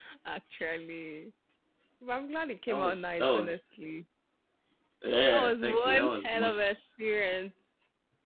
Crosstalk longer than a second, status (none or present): present